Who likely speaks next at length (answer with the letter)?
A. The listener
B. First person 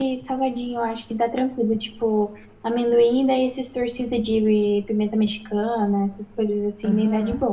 A